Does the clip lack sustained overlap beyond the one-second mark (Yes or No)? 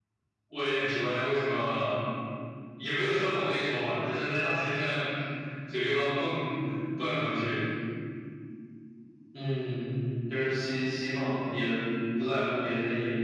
Yes